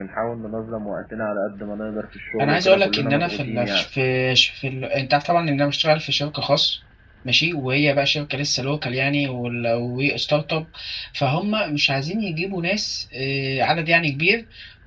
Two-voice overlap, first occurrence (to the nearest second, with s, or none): 2 s